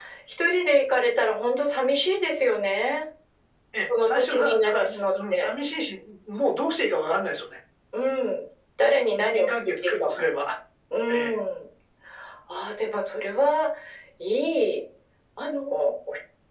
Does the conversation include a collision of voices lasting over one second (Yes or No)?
Yes